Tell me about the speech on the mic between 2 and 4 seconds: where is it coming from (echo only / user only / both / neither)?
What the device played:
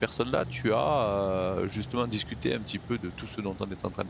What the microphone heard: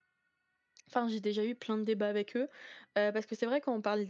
user only